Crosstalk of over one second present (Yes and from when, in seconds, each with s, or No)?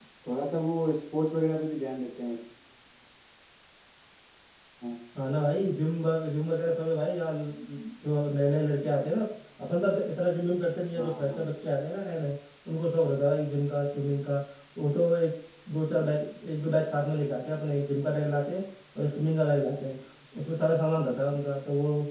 No